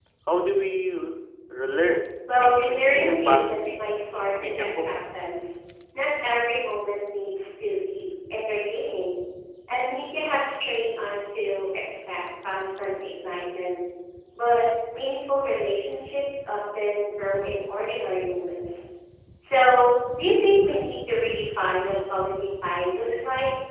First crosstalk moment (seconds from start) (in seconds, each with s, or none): 2.3 s